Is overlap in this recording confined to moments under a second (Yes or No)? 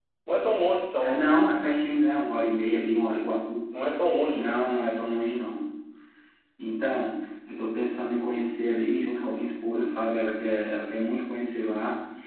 Yes